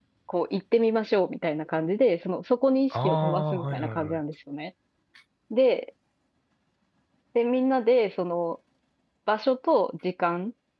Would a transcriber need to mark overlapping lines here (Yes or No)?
Yes